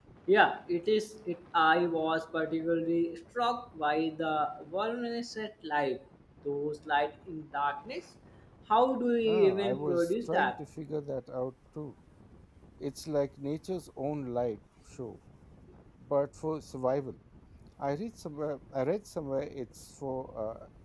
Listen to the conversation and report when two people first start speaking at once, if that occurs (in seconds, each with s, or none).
9.2 s